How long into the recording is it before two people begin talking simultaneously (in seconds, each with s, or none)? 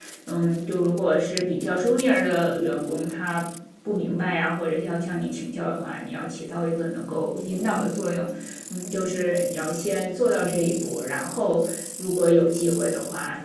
none